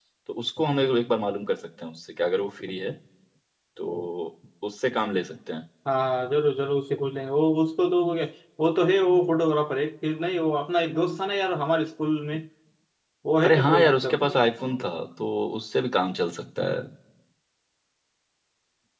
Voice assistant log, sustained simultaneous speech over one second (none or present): present